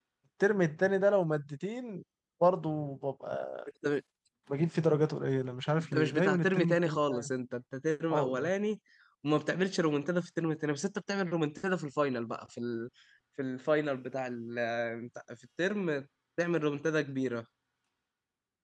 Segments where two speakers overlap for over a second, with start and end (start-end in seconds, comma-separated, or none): 5.8-7.3